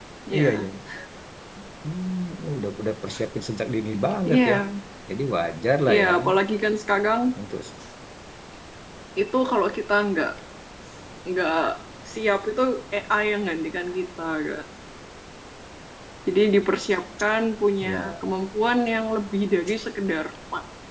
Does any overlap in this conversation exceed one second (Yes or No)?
No